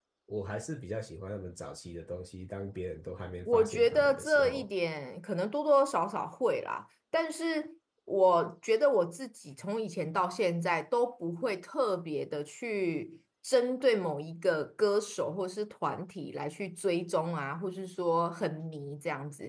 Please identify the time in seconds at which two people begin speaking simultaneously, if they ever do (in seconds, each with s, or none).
3.5 s